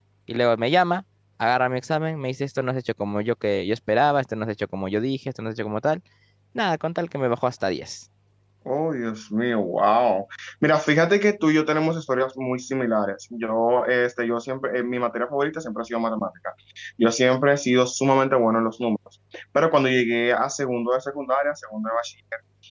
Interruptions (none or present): none